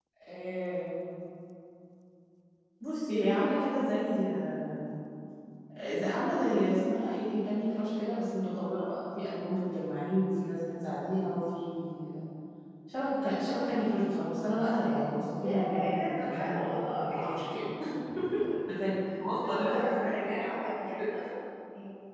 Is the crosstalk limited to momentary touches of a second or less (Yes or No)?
No